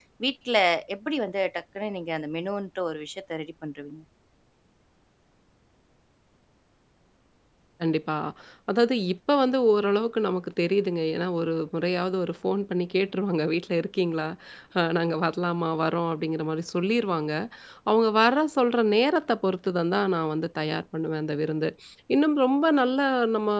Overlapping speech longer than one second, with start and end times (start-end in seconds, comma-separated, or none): none